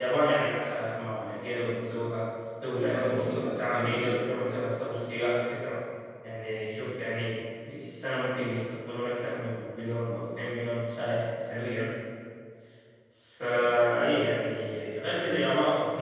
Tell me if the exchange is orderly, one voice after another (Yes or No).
No